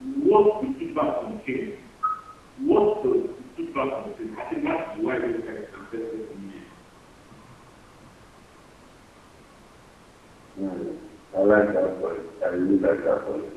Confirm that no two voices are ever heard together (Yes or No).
Yes